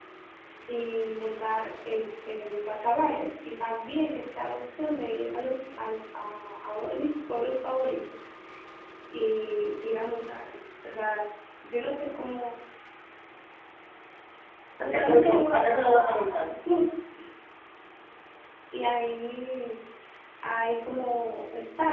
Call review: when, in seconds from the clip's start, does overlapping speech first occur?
14.9 s

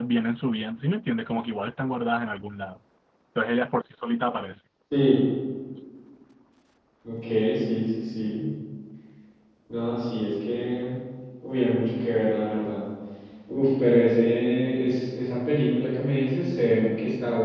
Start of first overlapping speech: none

